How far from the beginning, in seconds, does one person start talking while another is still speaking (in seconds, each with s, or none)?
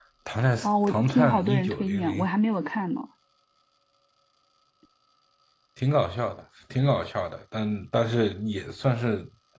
0.6 s